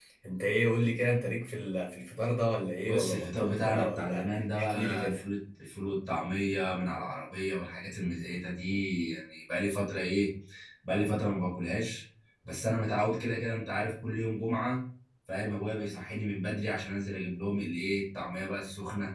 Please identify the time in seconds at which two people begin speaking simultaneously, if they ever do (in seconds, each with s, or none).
2.9 s